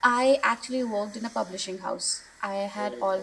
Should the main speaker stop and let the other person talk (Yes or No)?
No